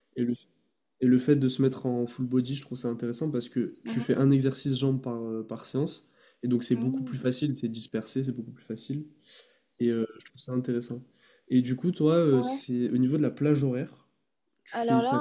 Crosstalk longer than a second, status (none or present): none